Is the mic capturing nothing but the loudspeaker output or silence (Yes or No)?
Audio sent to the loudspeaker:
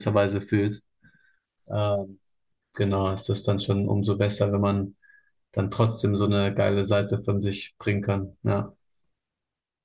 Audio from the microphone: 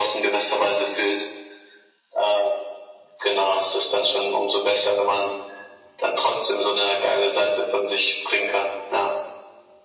Yes